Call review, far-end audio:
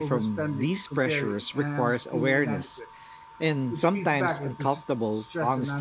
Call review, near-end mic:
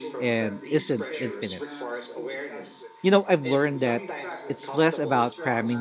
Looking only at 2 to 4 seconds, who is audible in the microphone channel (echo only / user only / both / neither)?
both